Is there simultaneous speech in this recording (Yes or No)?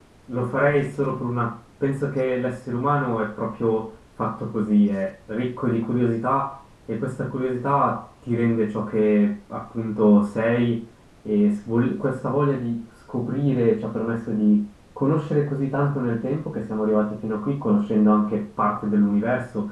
No